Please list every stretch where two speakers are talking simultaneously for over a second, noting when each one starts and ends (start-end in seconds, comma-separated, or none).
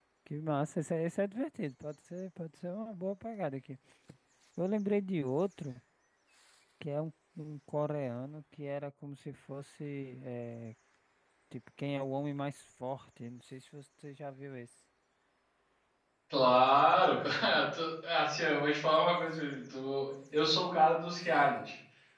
none